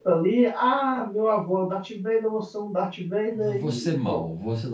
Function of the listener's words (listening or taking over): taking over